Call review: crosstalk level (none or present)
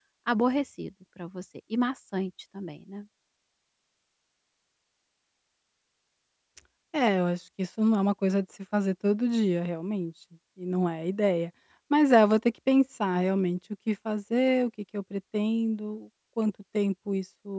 none